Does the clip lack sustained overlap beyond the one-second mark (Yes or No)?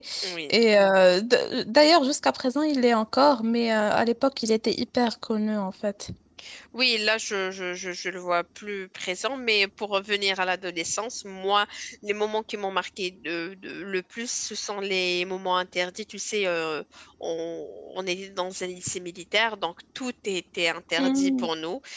Yes